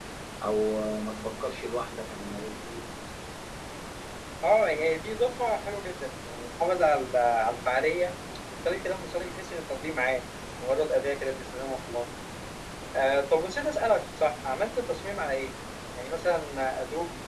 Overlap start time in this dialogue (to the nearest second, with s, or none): none